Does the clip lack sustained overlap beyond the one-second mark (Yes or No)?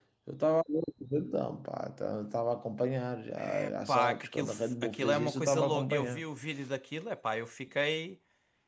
No